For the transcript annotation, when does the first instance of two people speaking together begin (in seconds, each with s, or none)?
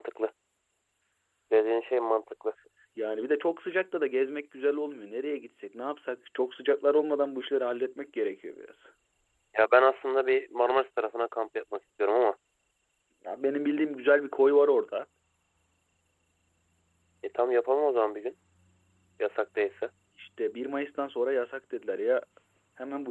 none